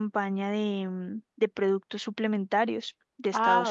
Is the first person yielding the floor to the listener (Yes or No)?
Yes